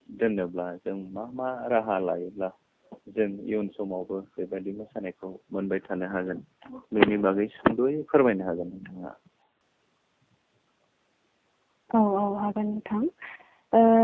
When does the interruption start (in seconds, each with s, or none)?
none